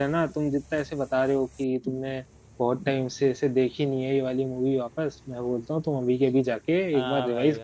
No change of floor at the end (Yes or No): No